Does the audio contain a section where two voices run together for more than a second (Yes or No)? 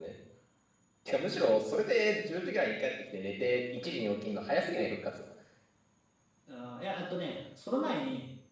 No